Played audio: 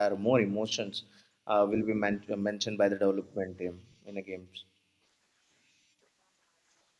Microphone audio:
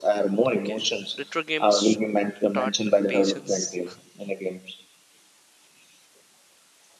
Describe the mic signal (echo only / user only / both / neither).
both